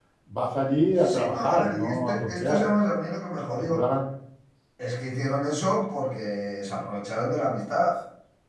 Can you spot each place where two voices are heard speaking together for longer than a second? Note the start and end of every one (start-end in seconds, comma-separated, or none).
1.1-2.6